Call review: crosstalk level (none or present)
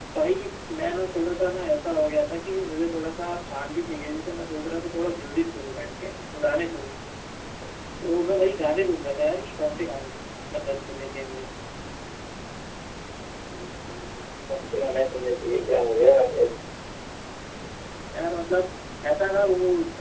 none